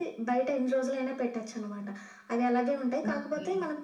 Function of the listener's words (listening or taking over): listening